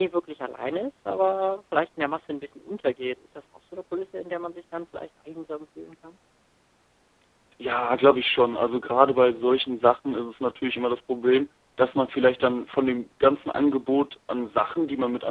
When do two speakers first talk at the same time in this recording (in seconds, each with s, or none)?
none